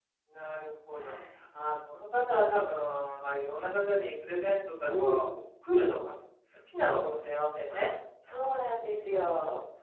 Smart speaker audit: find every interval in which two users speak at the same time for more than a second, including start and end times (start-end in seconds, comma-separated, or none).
none